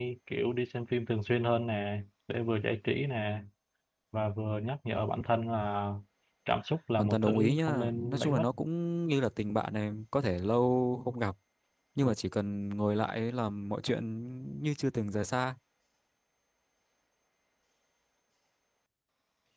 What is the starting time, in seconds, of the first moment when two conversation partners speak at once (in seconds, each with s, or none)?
7.0 s